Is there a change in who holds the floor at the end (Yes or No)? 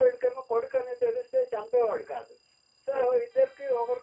No